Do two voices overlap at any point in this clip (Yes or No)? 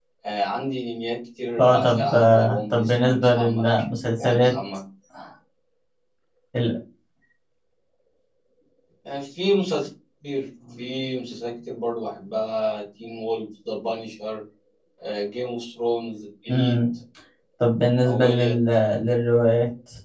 Yes